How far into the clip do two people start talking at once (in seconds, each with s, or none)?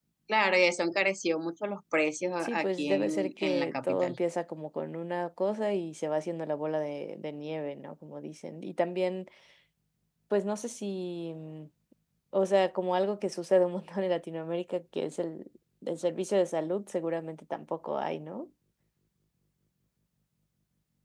2.4 s